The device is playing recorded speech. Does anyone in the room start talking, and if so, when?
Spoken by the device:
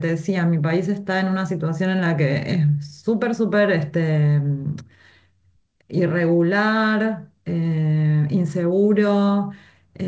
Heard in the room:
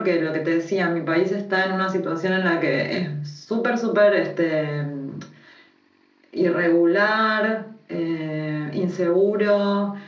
none

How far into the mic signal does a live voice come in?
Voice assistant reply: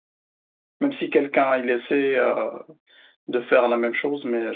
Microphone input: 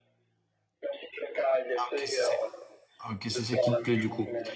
1.8 s

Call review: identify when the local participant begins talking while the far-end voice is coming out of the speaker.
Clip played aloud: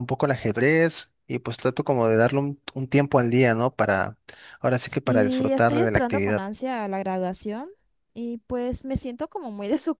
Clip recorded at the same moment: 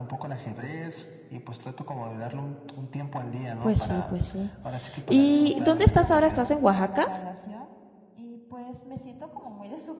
3.6 s

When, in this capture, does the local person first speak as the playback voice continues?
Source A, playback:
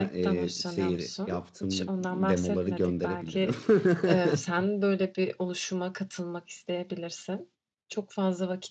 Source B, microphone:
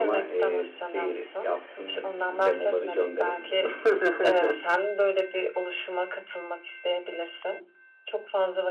none

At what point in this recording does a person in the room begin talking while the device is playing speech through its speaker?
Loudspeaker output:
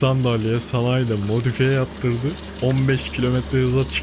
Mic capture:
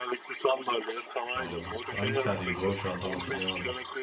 1.3 s

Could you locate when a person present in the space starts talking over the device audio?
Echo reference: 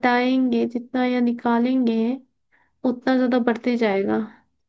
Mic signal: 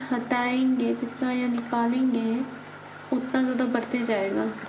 none

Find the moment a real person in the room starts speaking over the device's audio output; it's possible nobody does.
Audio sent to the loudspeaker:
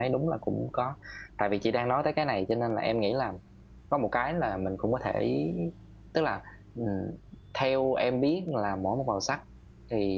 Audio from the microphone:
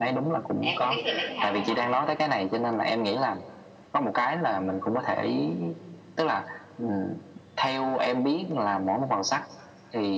0.6 s

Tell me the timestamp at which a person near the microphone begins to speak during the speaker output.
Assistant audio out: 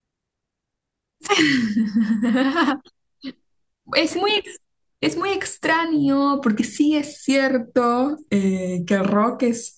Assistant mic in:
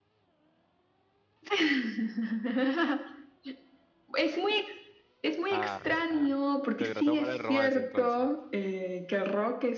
5.5 s

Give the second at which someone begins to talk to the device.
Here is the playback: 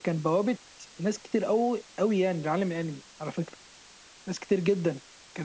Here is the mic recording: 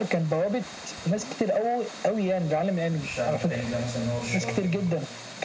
3.0 s

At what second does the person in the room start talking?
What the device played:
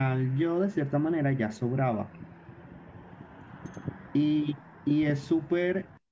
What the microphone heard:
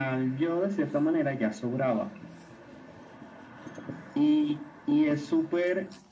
none

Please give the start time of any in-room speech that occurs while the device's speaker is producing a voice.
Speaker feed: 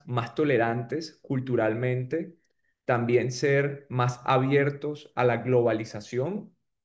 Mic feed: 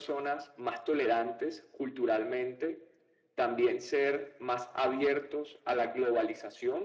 none

